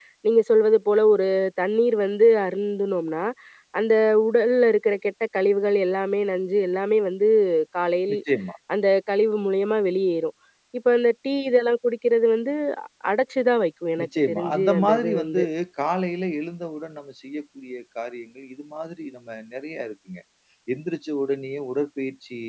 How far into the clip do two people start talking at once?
14.0 s

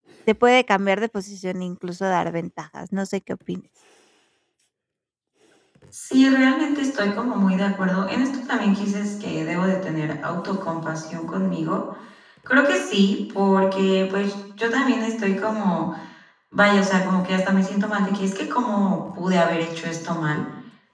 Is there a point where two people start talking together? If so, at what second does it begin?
none

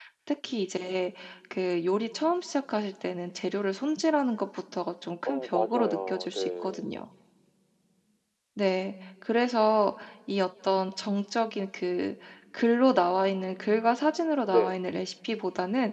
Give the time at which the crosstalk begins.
5.2 s

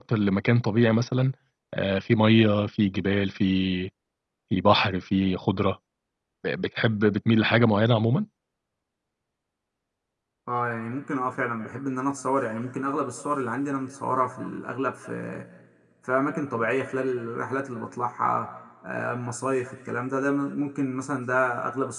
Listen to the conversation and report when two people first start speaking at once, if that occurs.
none

